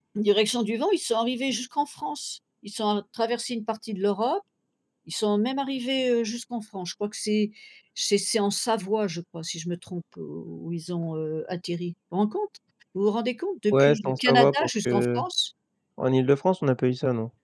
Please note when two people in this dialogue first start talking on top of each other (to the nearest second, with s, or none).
14 s